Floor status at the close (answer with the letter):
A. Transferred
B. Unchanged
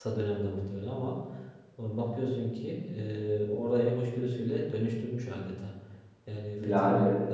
B